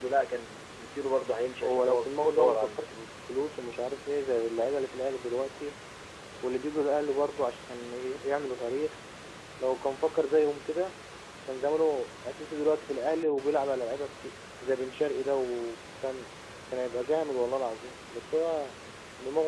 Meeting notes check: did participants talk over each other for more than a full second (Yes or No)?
Yes